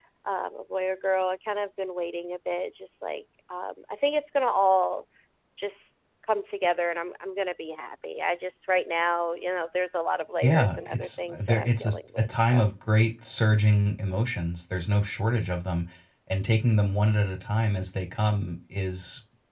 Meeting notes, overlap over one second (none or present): present